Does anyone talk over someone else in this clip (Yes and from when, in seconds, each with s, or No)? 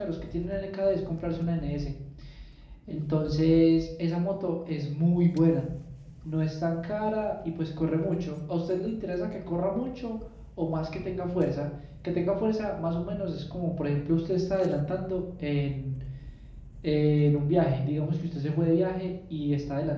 No